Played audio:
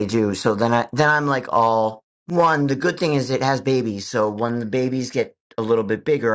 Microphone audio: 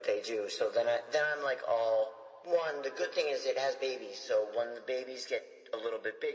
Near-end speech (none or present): none